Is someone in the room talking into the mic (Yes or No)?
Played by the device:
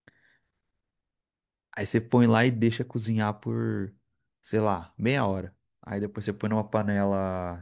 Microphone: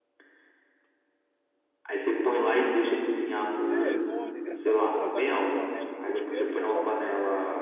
Yes